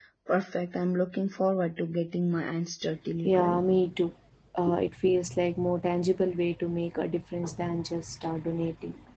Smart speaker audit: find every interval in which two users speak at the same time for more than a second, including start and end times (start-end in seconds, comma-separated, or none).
none